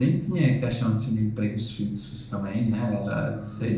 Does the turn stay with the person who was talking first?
Yes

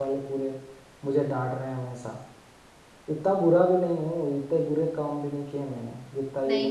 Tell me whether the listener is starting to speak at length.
Yes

